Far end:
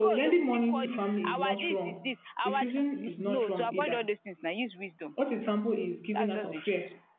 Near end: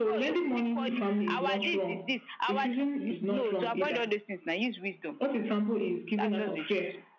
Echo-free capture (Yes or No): No